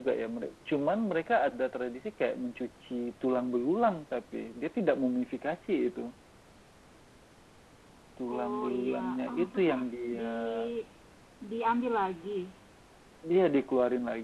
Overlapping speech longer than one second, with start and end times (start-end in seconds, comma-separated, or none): 8.3-9.8